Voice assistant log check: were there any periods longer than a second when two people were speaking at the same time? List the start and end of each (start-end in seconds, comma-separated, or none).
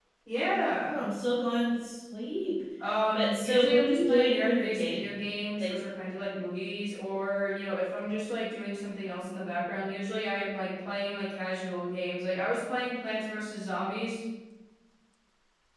3.1-5.1